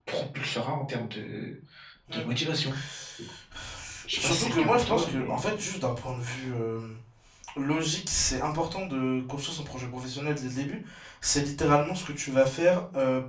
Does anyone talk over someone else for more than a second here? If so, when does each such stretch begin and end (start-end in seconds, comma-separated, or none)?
4.2-5.4